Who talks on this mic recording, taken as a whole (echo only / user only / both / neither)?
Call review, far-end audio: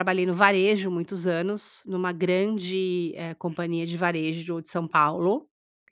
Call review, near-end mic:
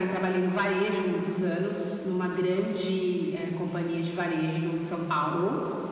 echo only